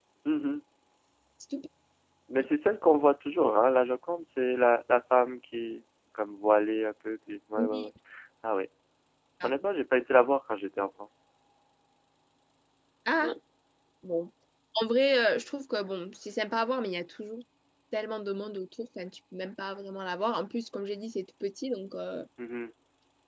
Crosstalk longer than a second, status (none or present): none